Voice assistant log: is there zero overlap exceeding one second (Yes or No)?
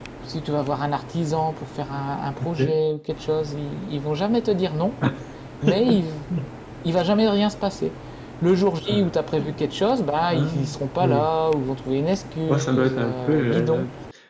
No